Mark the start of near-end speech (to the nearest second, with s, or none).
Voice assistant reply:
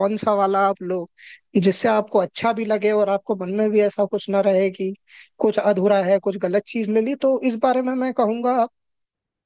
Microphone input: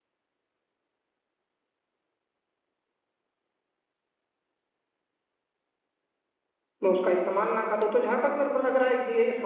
7 s